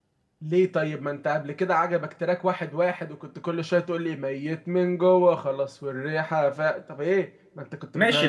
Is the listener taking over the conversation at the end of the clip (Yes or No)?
Yes